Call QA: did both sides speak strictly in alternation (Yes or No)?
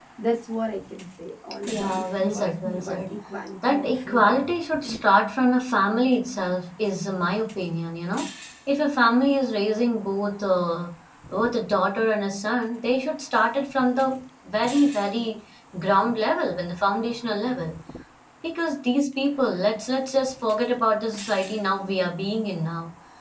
No